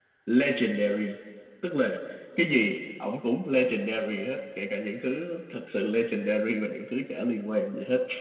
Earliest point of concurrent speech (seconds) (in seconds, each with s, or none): none